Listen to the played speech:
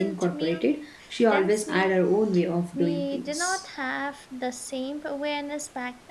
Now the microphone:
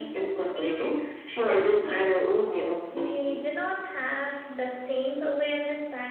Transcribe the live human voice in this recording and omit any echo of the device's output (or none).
none